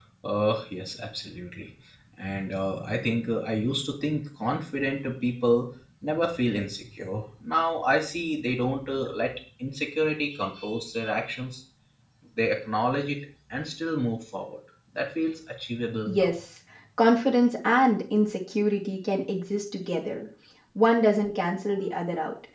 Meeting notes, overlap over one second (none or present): none